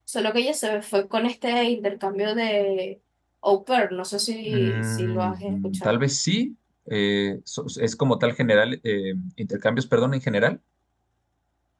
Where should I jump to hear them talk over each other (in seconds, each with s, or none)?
4.4 s